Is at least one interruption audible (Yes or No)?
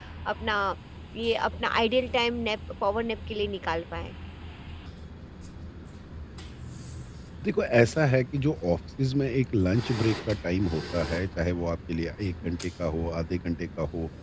No